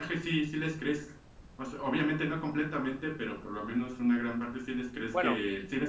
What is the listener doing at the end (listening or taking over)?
listening